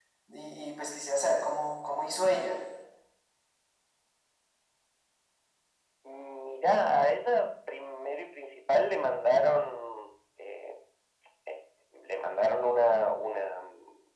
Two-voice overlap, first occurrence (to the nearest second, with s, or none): none